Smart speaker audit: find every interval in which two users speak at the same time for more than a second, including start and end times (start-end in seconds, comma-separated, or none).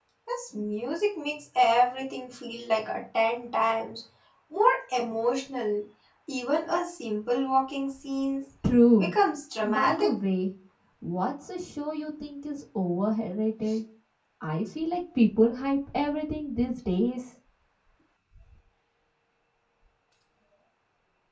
none